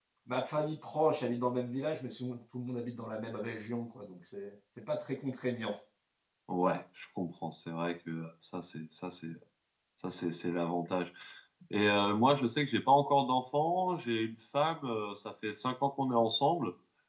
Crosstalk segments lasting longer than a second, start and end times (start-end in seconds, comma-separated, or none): none